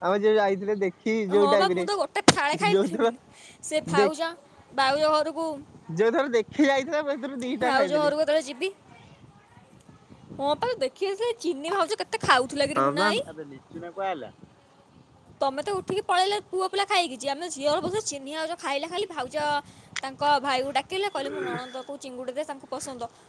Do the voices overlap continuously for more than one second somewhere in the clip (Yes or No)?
No